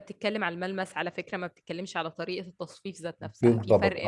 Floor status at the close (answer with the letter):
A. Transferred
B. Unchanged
B